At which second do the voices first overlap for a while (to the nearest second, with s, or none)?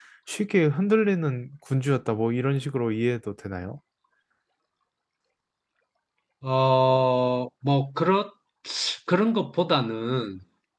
none